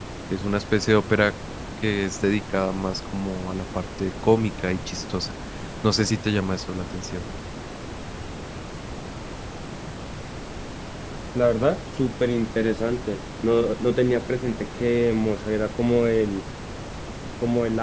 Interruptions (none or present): none